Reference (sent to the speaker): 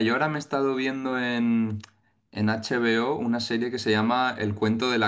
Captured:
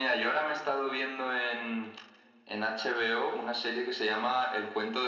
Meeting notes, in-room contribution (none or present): none